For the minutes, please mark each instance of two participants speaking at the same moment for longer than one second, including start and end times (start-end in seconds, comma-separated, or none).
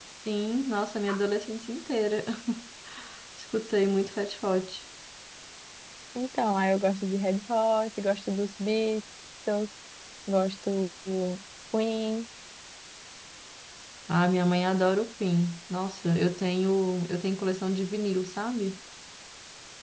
none